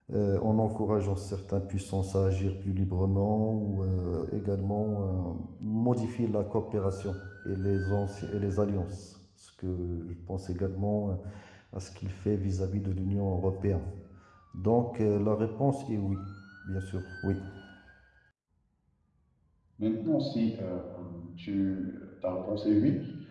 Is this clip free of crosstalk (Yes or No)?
Yes